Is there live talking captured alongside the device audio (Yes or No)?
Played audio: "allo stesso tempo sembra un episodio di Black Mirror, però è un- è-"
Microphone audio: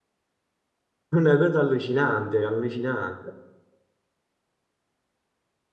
Yes